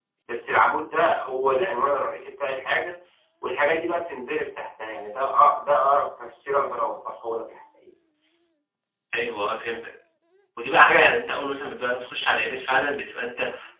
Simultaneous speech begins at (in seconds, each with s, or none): none